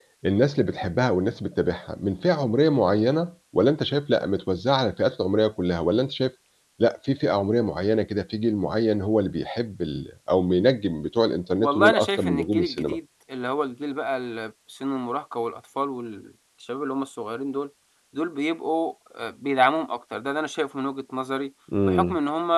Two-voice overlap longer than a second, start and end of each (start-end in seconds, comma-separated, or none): 11.6-13.0